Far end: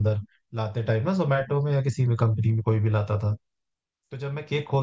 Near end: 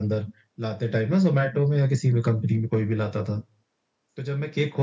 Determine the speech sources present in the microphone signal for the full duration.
echo only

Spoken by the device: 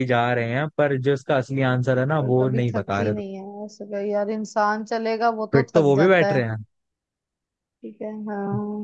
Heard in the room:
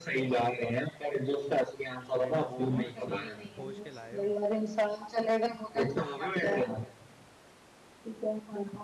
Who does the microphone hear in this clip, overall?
both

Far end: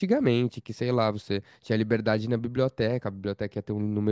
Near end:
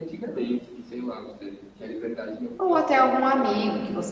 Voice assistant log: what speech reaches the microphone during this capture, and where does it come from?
both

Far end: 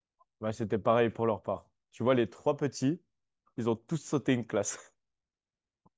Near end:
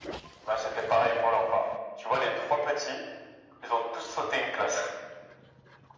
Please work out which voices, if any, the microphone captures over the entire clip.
echo only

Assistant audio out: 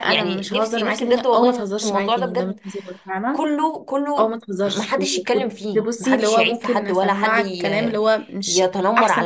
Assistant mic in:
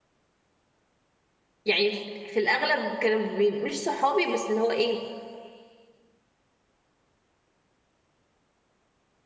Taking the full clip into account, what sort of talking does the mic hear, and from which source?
user only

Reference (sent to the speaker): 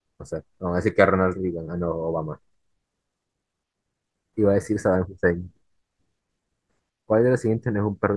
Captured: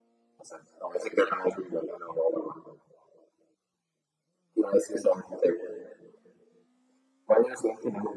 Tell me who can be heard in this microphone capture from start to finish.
echo only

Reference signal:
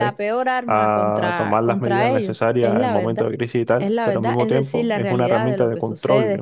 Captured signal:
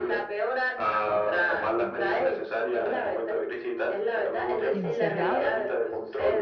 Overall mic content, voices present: both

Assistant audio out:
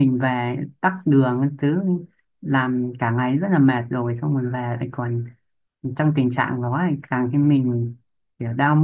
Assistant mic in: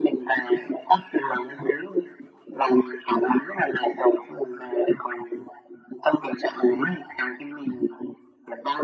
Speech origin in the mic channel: echo only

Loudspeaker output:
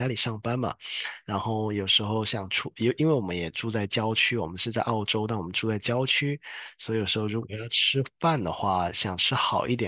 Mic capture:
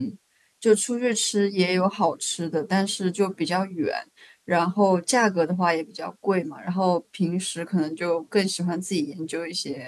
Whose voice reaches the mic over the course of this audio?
user only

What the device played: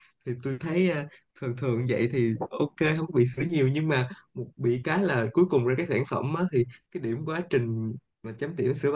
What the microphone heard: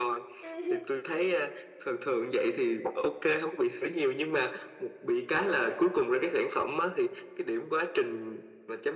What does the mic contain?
both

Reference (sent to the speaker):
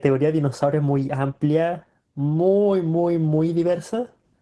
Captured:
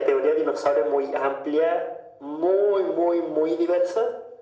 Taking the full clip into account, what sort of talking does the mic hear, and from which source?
echo only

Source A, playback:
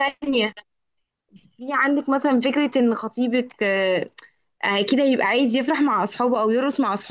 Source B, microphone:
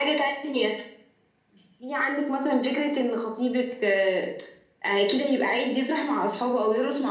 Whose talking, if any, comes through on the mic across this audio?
echo only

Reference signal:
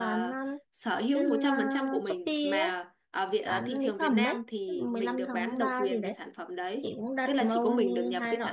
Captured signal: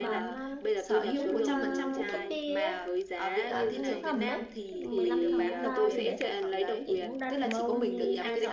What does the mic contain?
both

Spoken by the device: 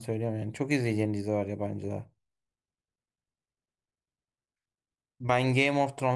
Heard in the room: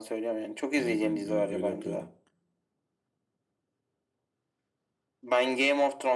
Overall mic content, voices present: both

